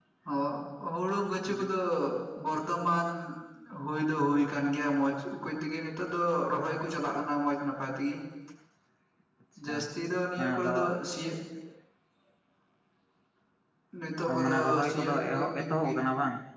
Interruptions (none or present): present